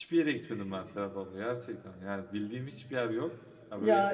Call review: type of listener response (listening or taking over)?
listening